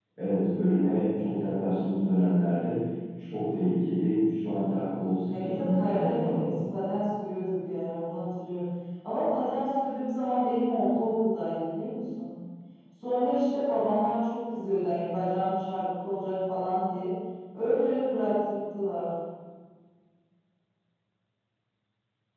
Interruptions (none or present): present